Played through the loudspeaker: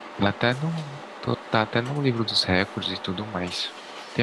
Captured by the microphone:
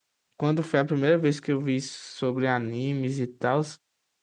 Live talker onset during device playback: 0.4 s

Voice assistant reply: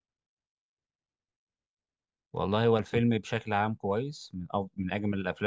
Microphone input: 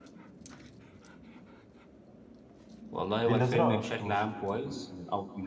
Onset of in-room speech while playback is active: 3.2 s

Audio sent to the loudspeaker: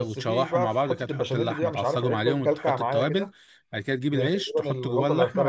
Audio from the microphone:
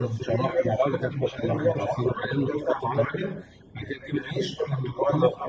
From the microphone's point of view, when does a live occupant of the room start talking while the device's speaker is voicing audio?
none

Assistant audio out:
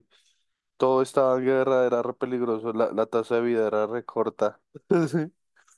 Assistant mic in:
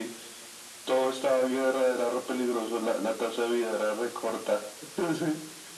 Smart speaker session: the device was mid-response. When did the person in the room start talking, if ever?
none

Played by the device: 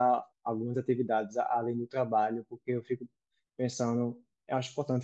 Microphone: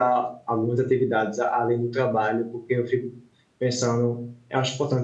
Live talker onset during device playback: none

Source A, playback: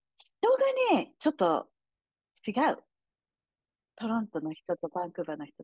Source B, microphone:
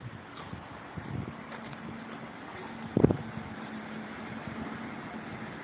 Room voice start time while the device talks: none

